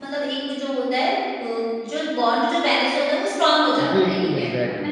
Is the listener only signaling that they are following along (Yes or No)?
No